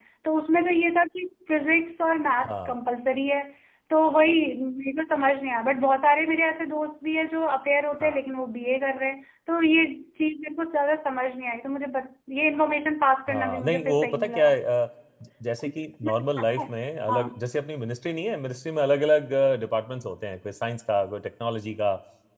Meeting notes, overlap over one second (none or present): present